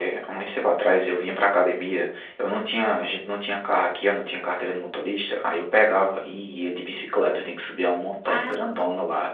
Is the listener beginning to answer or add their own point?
No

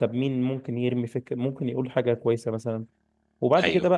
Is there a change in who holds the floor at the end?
No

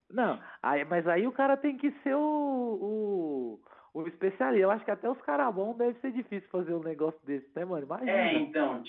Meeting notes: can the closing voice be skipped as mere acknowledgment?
No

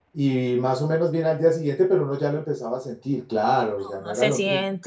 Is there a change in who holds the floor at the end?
Yes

